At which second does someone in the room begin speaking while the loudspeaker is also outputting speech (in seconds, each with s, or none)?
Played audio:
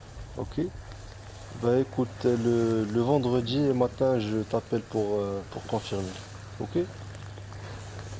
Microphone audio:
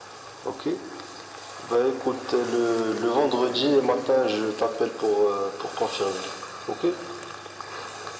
none